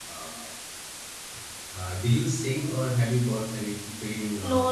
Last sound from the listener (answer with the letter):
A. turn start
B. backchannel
A